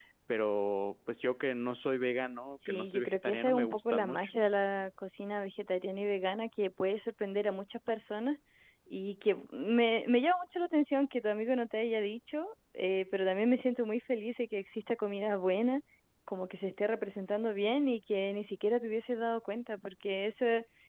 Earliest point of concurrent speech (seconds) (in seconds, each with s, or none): 2.7 s